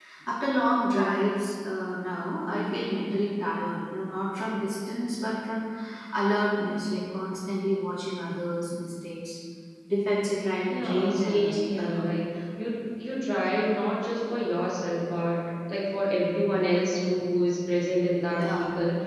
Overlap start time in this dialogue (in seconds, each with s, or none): 10.7 s